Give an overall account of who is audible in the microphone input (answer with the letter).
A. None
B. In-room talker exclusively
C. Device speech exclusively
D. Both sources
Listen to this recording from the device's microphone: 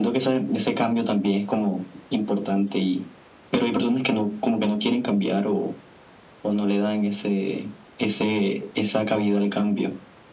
C